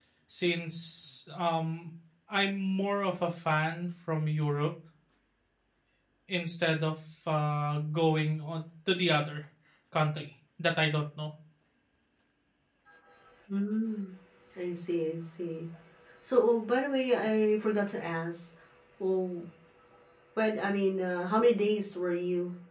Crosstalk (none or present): none